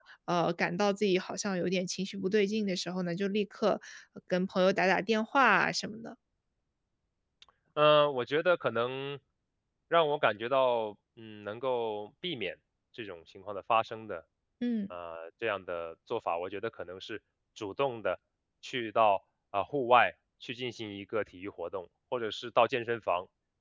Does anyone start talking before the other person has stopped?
No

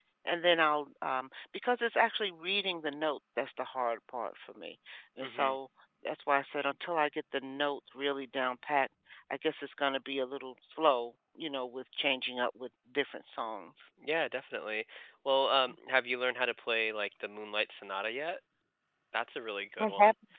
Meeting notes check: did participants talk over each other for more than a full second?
No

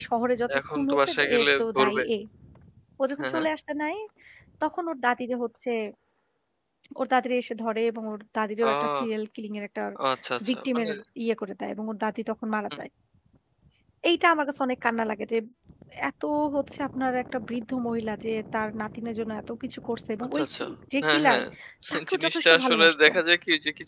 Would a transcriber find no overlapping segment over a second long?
No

